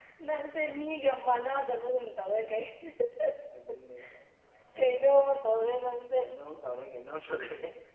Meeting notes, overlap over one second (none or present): none